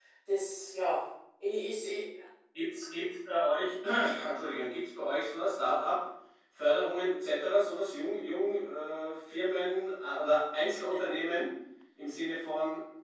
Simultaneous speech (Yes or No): No